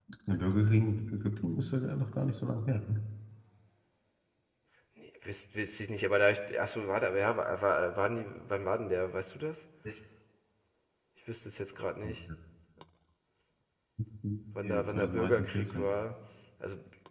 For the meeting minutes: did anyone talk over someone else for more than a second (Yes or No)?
Yes